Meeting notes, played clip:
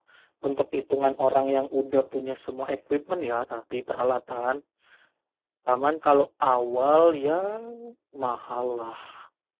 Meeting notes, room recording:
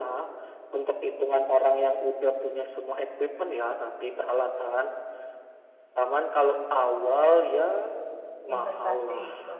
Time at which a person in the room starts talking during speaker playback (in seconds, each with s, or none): 8.5 s